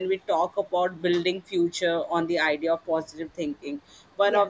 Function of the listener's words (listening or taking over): listening